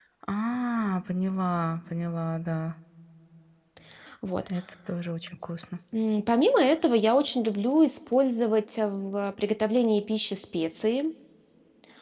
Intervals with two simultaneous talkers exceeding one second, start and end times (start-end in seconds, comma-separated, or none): none